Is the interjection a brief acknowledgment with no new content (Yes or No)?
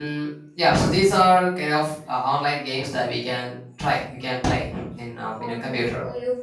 No